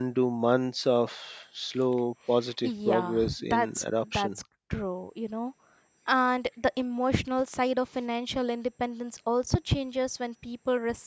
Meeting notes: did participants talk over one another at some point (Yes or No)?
Yes